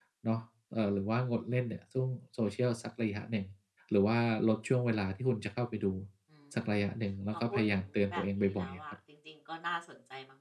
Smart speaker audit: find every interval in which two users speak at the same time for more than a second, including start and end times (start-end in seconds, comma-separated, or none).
7.3-8.8